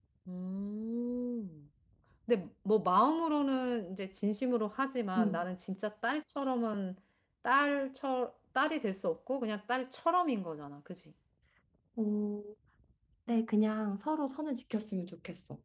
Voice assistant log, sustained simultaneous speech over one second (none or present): none